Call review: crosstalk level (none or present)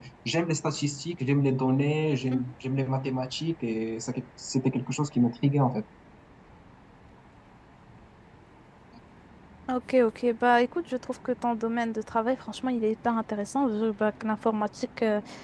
none